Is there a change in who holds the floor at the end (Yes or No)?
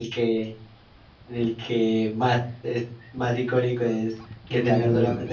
Yes